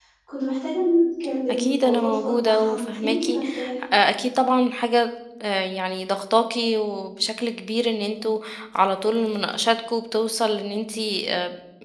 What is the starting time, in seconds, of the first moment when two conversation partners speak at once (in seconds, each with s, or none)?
1.5 s